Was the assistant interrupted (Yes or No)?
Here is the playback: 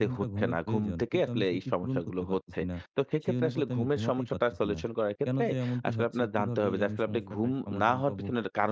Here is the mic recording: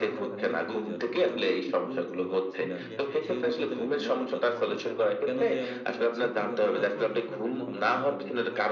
Yes